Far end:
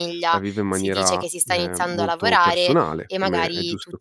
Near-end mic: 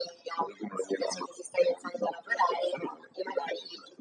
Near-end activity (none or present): none